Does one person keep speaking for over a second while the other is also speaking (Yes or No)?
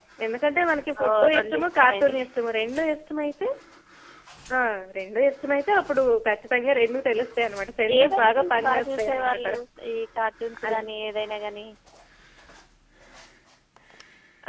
Yes